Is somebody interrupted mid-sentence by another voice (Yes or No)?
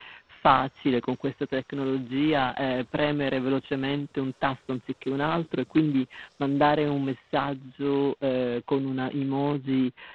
No